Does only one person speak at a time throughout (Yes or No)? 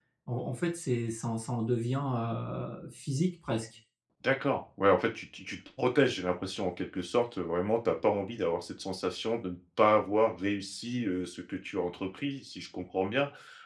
Yes